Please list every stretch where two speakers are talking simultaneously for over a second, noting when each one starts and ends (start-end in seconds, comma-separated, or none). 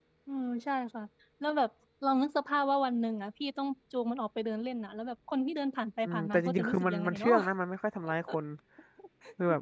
6.0-7.3